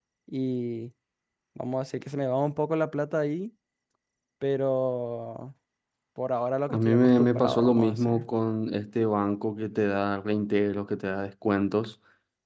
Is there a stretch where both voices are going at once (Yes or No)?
Yes